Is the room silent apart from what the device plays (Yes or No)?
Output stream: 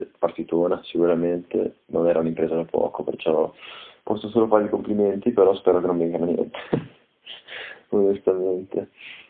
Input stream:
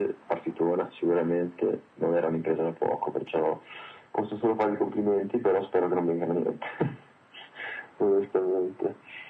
Yes